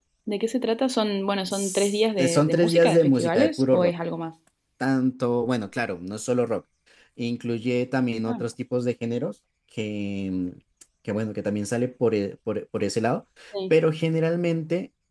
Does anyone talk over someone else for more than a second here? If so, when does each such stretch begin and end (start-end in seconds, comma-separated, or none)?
1.5-3.9